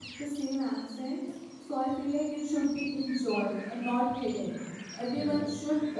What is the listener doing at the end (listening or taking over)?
listening